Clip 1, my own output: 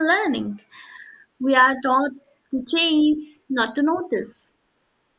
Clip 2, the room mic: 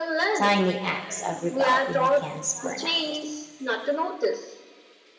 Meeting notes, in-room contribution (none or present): present